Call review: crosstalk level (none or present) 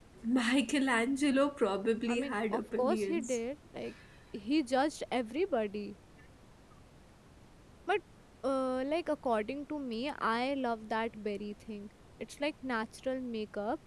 present